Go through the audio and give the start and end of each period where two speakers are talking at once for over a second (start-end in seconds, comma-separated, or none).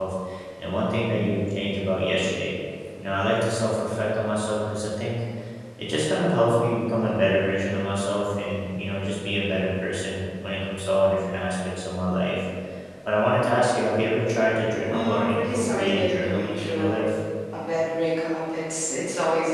14.9-17.0